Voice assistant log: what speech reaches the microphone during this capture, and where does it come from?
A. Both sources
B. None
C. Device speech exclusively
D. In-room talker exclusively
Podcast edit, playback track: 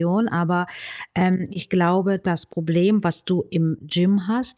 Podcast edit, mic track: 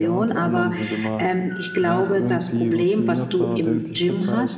A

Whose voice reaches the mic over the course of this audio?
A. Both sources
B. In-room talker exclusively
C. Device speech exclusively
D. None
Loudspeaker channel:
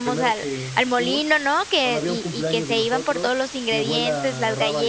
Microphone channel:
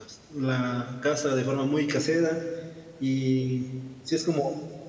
B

